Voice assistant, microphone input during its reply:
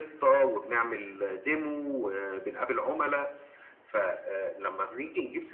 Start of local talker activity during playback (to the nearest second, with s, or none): none